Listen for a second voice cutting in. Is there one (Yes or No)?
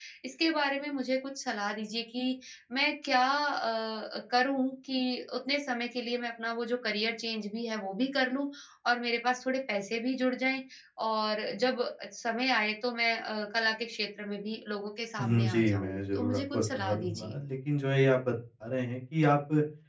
Yes